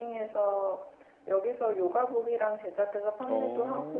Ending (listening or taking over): listening